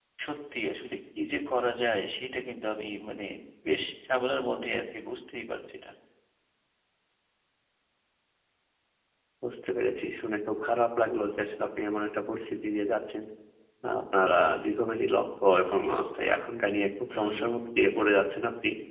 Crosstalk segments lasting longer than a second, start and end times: none

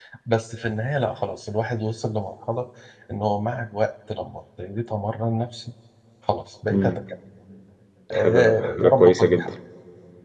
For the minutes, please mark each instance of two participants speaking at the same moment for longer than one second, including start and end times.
8.1-9.4

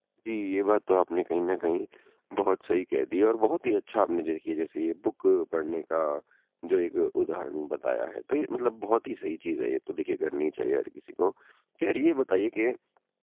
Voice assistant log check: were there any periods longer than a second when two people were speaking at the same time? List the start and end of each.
none

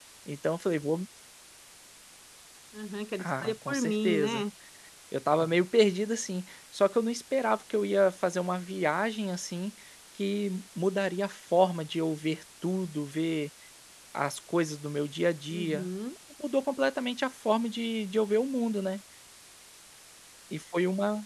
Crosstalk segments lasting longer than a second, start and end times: 3.2-4.4

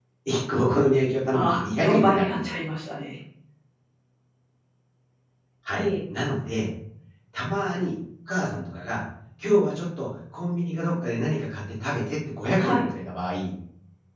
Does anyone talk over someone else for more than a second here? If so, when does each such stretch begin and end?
1.3-2.6

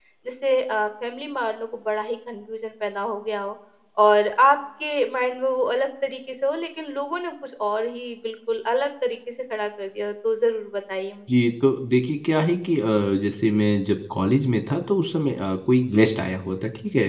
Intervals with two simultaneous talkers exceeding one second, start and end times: none

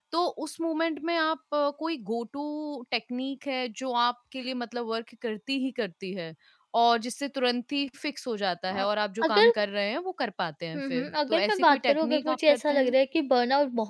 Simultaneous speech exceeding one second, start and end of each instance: 10.8-12.9

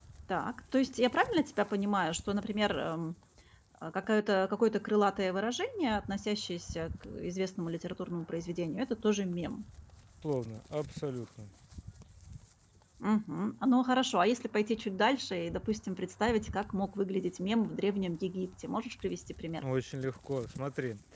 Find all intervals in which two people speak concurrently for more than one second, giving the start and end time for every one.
none

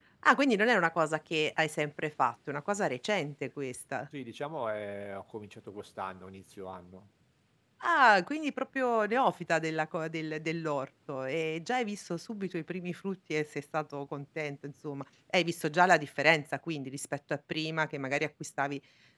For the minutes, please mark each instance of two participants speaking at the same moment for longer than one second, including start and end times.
none

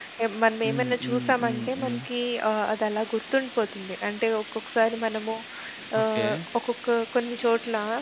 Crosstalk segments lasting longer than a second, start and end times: 0.7-2.0

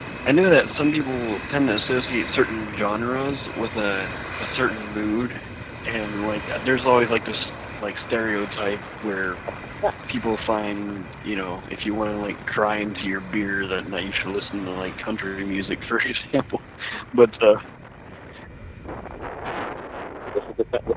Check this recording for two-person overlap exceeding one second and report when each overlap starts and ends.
none

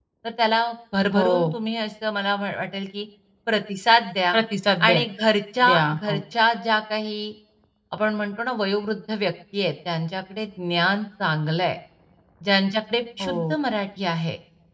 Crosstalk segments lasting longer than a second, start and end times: none

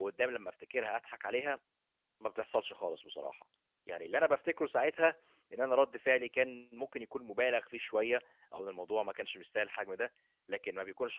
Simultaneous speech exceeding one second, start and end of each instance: none

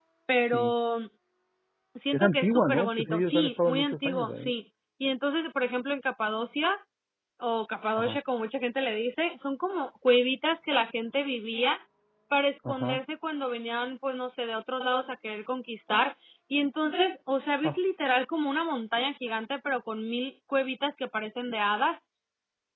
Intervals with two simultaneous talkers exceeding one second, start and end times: 2.1-4.5

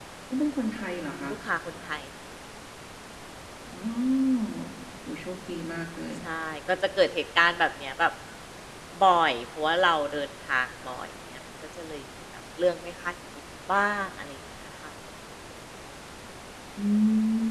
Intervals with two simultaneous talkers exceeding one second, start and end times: none

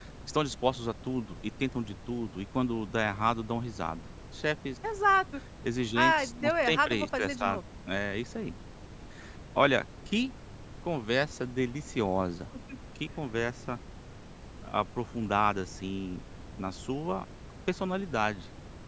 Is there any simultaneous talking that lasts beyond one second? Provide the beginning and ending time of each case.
6.0-7.6

